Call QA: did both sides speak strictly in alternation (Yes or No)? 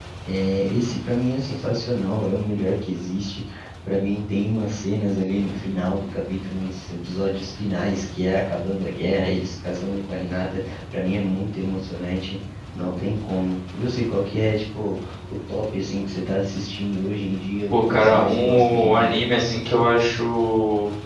No